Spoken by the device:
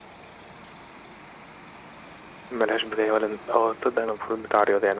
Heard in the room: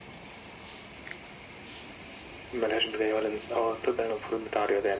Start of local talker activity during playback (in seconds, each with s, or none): none